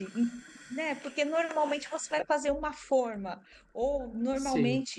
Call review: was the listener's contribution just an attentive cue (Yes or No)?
Yes